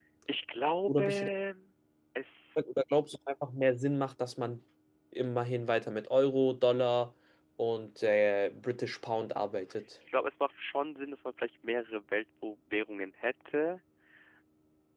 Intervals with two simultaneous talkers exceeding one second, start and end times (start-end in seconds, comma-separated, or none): none